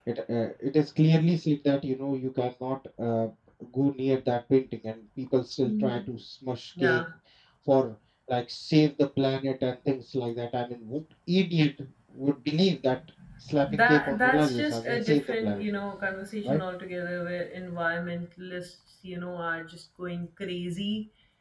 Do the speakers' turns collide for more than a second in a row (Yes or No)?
Yes